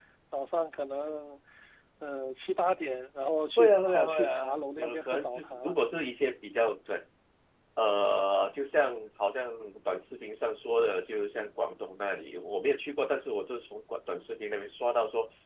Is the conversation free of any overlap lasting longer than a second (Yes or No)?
No